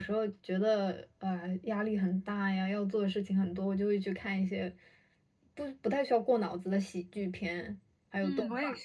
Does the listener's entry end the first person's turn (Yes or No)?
Yes